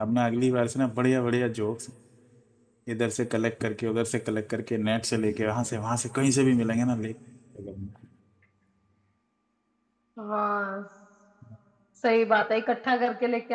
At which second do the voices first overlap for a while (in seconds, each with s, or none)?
none